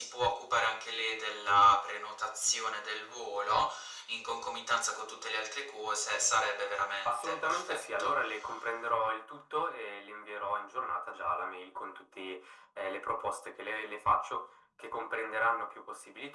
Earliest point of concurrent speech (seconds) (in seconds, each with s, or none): 7.0 s